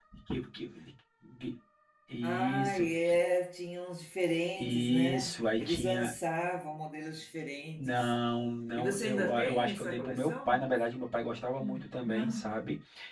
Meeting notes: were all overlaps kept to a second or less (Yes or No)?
No